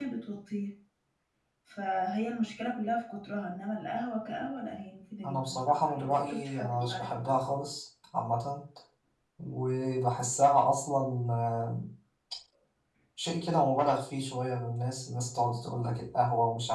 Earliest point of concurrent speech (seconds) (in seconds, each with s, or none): 5.2 s